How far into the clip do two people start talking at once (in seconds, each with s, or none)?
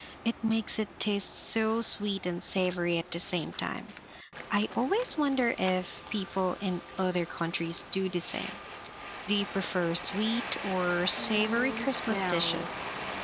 11.2 s